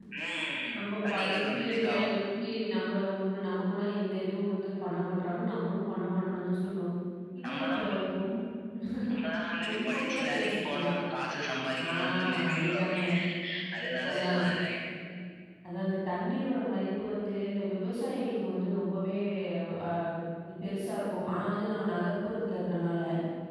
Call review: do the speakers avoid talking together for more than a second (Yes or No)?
No